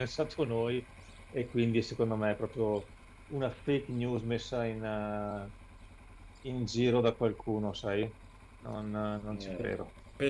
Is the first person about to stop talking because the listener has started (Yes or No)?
Yes